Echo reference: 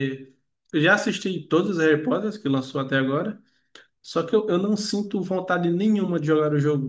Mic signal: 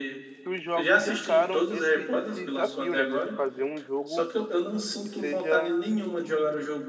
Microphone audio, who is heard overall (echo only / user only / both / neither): both